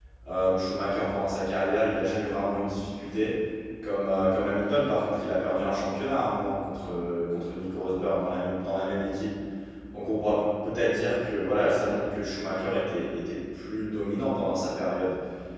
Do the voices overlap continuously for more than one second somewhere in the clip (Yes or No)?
No